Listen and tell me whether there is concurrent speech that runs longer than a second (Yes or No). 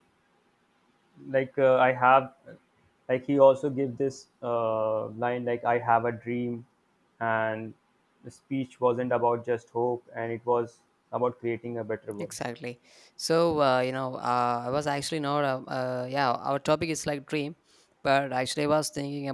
No